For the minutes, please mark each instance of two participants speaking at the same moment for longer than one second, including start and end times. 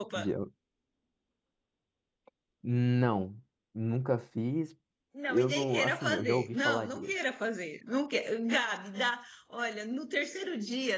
5.3-7.1

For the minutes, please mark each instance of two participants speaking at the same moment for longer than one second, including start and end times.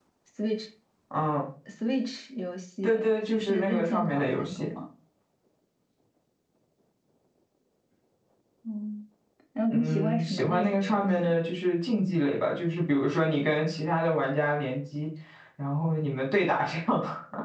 2.8-4.7, 9.7-11.1

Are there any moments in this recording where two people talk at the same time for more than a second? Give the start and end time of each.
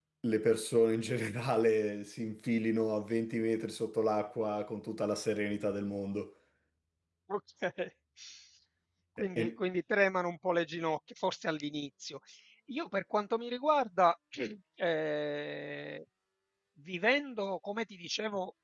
none

